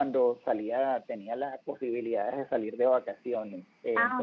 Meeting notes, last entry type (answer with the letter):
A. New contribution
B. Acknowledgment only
B